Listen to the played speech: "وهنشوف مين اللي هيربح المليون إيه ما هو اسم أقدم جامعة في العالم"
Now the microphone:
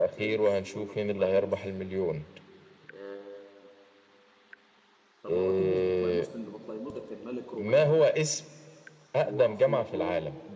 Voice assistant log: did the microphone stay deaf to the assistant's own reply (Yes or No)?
No